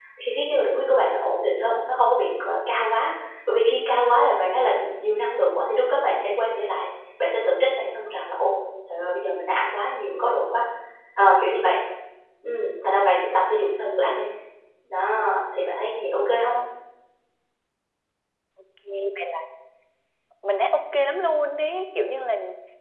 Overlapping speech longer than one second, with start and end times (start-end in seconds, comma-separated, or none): none